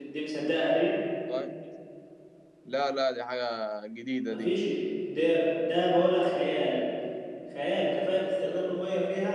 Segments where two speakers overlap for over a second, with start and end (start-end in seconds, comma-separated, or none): none